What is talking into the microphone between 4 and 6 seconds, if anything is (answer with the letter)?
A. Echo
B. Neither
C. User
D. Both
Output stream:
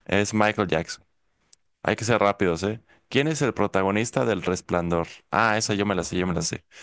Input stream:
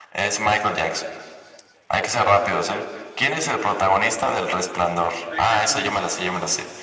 D